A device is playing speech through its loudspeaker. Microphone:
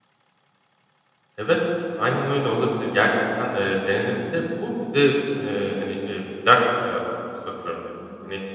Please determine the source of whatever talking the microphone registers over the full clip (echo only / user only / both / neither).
user only